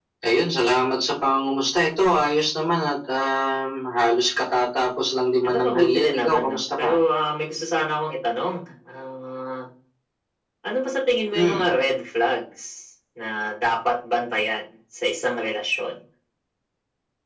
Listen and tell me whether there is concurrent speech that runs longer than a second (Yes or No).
Yes